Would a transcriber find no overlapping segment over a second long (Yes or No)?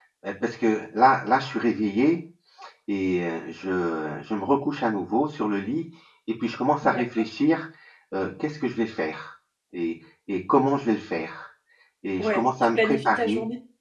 No